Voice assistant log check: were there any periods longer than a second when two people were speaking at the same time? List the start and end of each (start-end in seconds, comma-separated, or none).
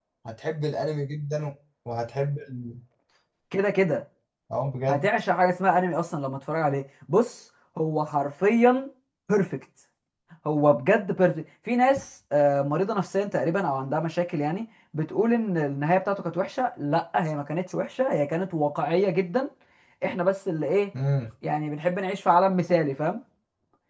none